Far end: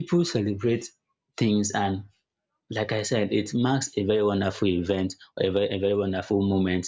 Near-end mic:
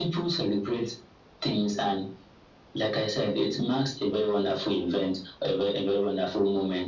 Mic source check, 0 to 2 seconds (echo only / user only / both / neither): echo only